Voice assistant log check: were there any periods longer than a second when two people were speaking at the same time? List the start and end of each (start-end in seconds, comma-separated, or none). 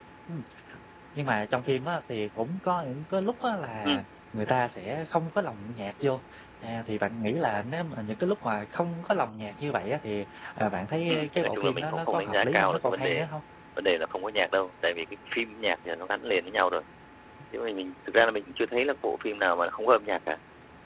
11.1-13.2